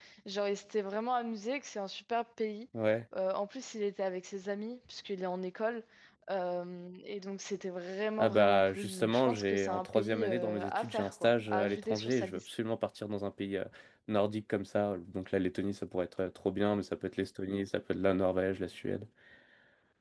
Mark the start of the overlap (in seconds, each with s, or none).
8.2 s